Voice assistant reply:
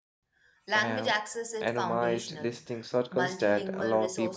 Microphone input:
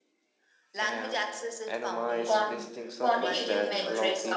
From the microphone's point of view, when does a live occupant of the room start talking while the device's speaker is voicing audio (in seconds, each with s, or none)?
2.3 s